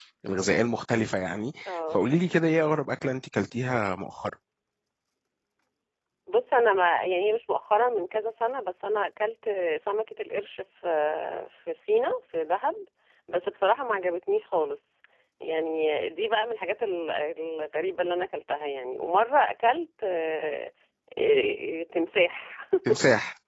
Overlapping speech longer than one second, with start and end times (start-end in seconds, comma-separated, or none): none